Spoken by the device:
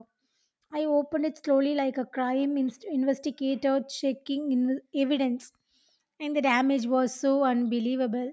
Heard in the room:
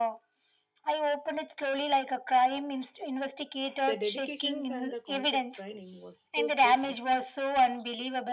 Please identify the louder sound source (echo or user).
echo